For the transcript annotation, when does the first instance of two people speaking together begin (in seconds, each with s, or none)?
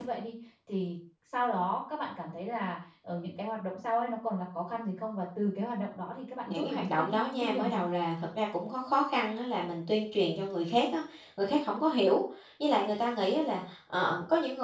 6.5 s